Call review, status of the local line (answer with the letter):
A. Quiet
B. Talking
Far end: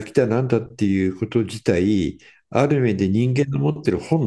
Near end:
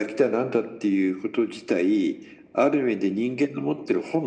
A